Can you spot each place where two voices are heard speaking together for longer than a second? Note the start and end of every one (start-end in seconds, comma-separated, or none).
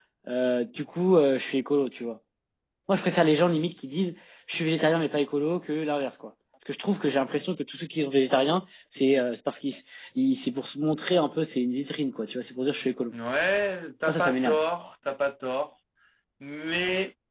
none